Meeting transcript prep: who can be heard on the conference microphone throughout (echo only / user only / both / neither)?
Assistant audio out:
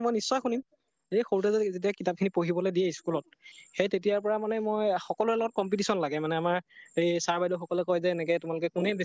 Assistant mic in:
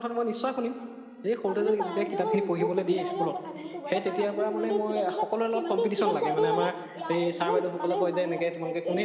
both